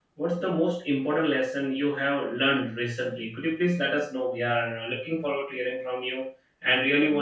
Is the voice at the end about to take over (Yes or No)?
No